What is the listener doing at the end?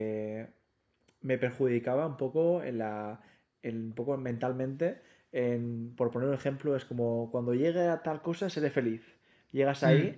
listening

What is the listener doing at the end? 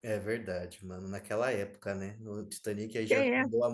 listening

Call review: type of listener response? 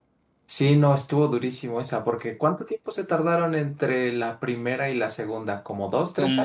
taking over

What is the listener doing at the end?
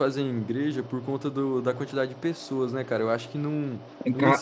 taking over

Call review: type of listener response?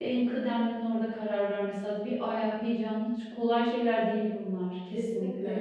taking over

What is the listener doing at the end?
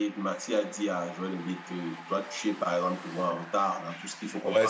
taking over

